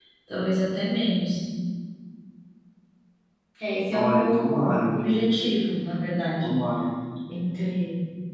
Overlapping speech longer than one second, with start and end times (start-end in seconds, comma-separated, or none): 3.9-5.3